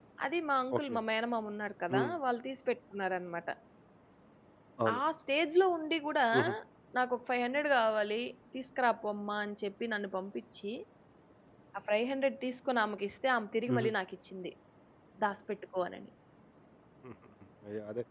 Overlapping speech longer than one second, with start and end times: none

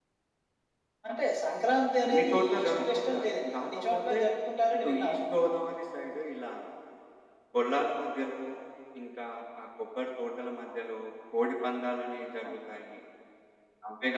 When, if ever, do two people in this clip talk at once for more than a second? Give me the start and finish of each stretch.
2.0-4.2

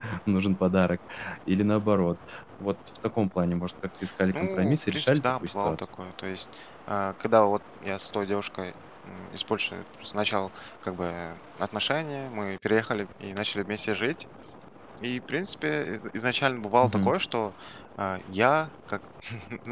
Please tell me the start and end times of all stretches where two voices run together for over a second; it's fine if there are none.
4.3-5.8

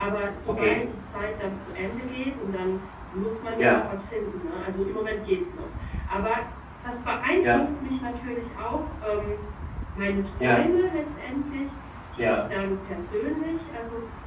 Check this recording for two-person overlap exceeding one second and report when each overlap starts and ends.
none

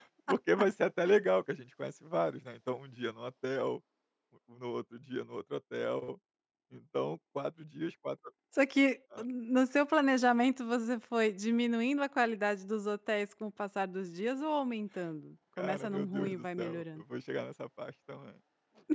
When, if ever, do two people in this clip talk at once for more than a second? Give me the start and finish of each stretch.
15.6-17.0

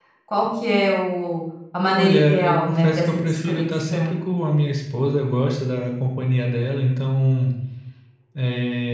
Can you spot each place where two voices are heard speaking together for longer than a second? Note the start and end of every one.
1.9-4.2

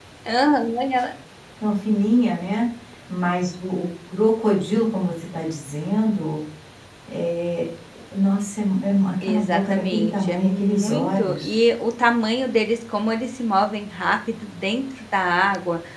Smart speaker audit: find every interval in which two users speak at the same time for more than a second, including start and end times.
9.2-11.6

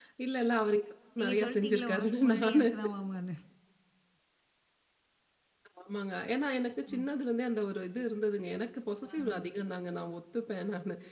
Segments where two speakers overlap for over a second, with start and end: 1.2-2.7

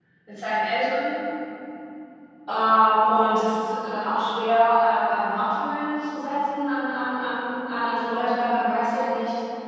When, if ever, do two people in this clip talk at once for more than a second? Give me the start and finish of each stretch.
none

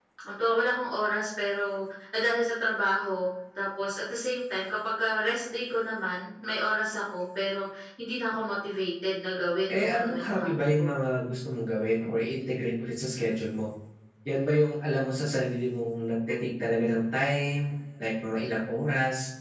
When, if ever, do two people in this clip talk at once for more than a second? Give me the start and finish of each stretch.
9.7-10.9

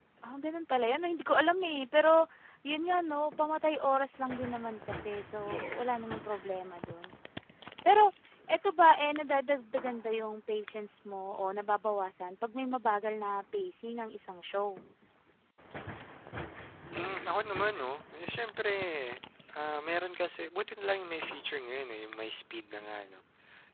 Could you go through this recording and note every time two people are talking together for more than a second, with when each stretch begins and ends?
none

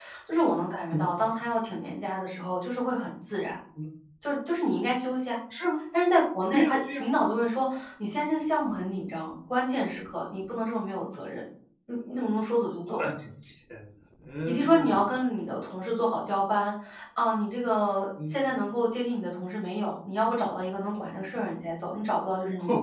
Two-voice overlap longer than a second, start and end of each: none

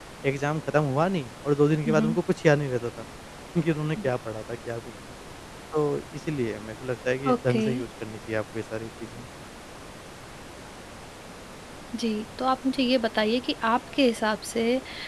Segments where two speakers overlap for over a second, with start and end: none

